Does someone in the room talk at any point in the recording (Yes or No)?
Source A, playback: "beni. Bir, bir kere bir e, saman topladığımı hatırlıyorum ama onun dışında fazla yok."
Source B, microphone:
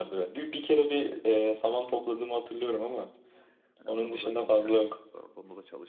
Yes